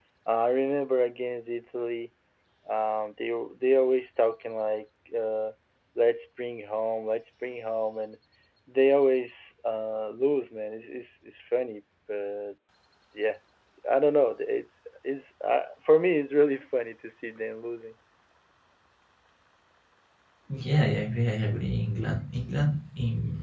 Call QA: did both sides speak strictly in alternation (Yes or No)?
Yes